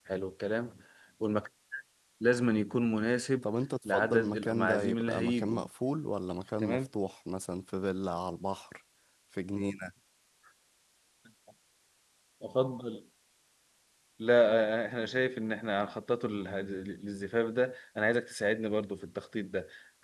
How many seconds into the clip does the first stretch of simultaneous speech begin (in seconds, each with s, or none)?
3.9 s